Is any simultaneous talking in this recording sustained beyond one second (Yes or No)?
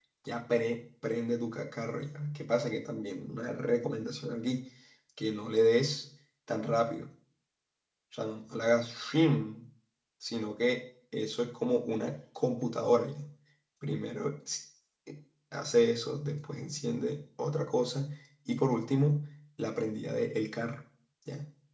No